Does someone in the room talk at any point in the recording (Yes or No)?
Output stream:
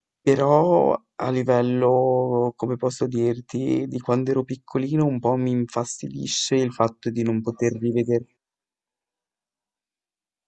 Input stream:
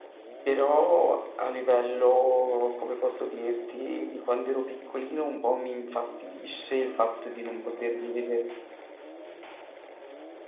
No